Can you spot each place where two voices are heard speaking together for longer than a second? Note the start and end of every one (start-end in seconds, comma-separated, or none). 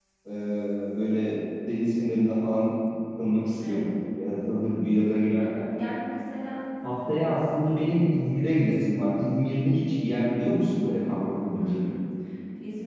none